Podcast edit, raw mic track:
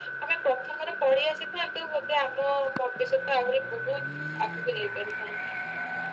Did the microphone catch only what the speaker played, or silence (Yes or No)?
Yes